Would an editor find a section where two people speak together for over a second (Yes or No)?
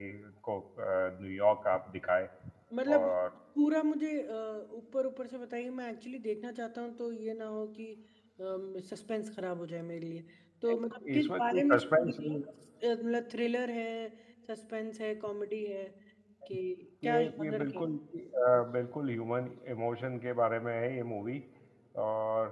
Yes